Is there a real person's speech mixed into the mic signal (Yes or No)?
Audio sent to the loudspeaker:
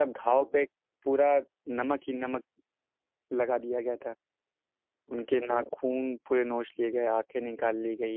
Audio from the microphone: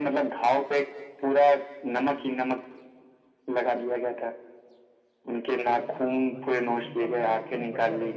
Yes